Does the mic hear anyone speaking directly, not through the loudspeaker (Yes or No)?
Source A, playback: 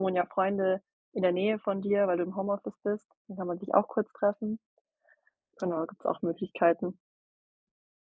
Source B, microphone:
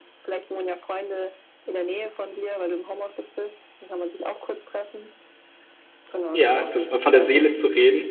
Yes